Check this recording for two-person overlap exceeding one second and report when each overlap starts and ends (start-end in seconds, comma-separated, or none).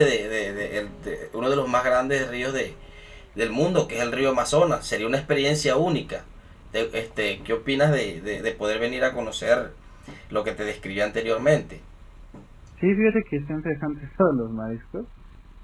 none